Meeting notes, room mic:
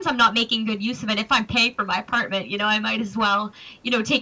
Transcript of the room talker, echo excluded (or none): none